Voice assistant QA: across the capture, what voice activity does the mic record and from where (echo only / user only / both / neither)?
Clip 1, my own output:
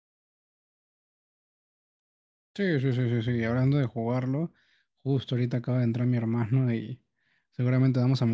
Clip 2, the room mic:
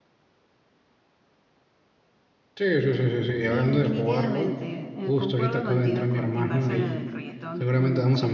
both